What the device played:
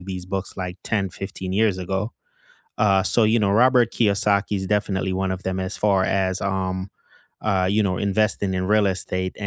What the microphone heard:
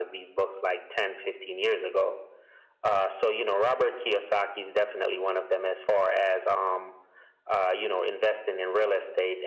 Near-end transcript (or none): none